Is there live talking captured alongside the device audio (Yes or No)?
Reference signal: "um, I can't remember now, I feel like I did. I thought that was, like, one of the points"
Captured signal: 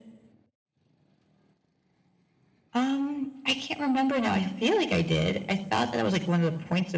No